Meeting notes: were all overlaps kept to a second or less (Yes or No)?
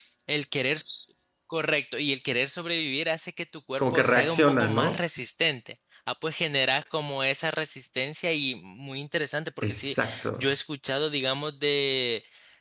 No